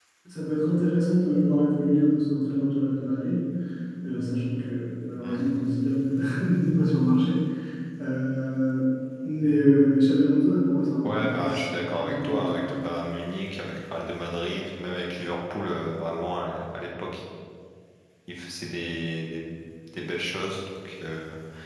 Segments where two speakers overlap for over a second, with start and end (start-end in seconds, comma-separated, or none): 11.0-12.7